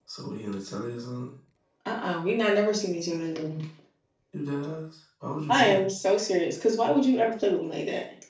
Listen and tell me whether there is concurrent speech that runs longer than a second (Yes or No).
No